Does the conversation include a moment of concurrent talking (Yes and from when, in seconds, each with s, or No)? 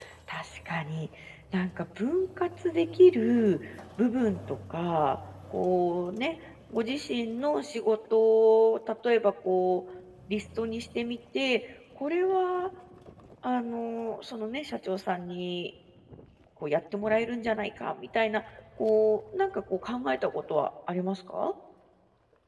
No